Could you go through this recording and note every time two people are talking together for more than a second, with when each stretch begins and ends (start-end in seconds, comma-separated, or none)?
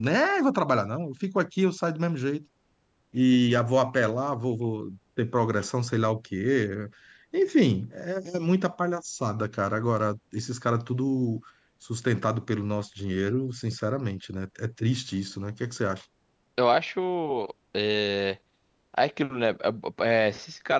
none